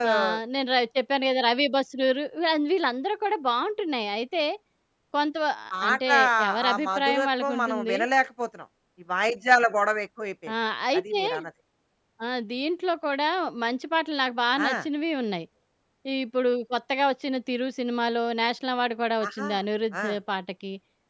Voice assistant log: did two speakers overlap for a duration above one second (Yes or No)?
Yes